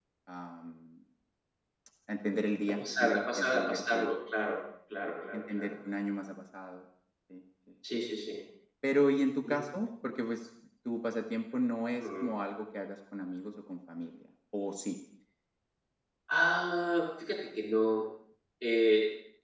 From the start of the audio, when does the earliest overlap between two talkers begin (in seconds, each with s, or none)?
2.7 s